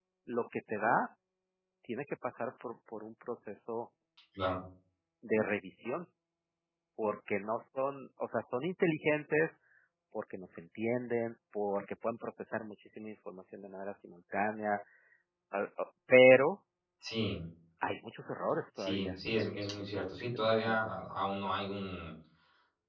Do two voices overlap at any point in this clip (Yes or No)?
Yes